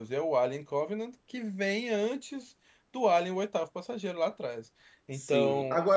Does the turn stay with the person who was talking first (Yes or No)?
No